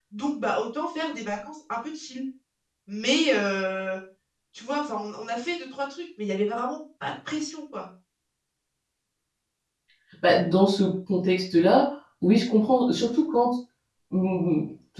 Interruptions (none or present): none